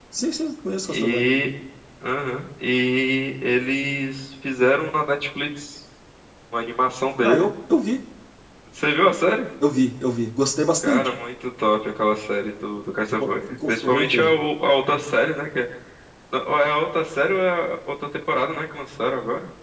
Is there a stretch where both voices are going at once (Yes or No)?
Yes